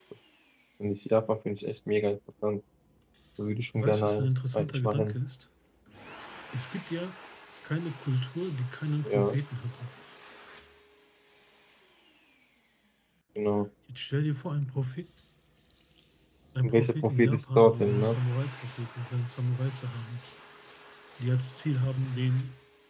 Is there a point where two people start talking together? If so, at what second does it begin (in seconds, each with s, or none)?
3.8 s